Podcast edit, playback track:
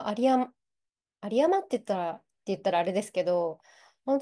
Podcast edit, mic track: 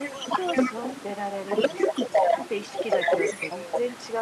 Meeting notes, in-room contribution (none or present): present